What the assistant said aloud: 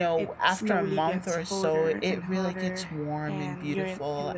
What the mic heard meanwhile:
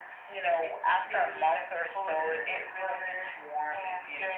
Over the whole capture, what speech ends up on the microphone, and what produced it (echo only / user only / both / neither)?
echo only